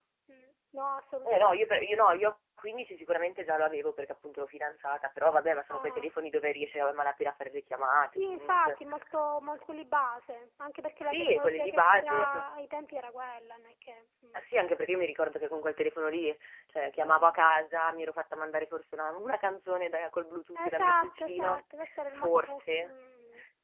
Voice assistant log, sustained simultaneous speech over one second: present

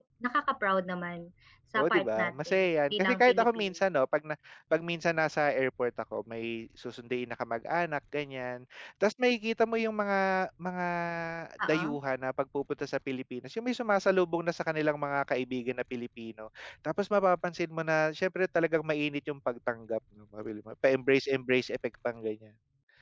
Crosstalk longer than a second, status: present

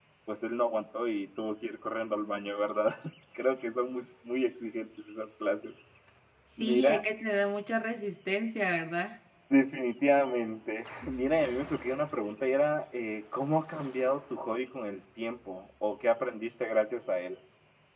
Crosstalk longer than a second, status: none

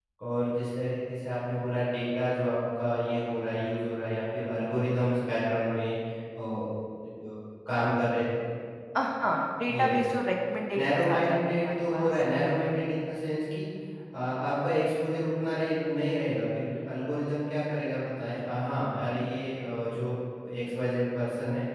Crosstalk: present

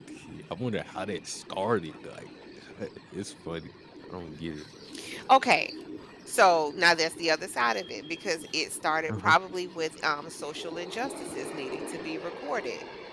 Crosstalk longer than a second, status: none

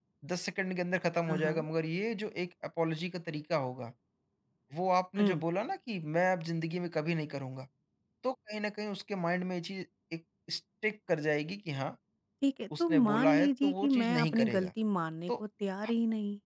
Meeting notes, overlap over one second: present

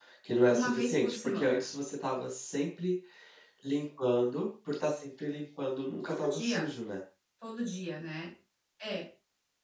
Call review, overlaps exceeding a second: present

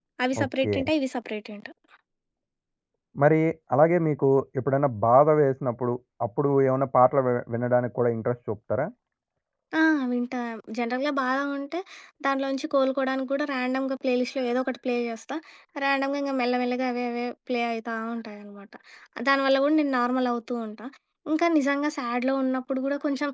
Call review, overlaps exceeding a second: none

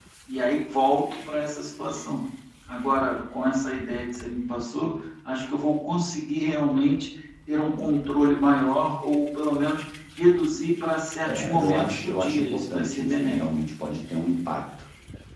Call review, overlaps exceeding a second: present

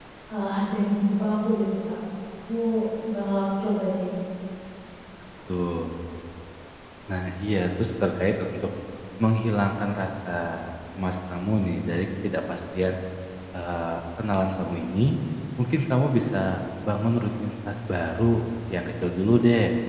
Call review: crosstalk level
none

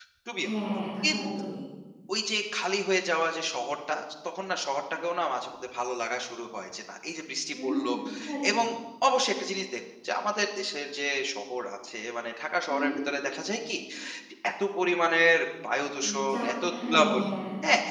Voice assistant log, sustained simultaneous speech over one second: present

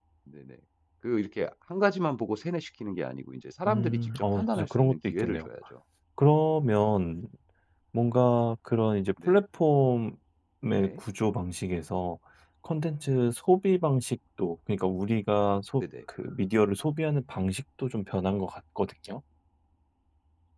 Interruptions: present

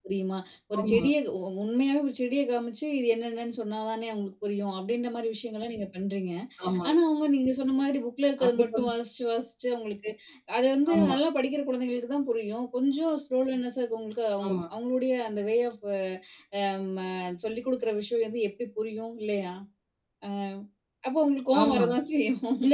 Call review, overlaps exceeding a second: none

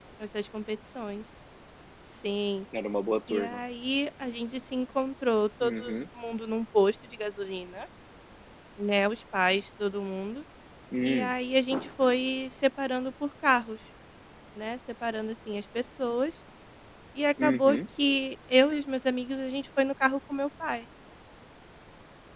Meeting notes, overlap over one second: none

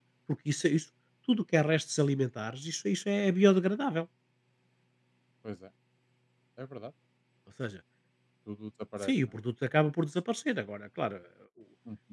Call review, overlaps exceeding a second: none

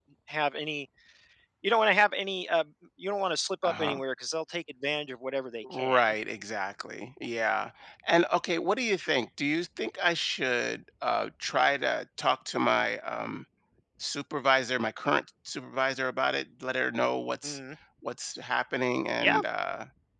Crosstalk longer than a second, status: none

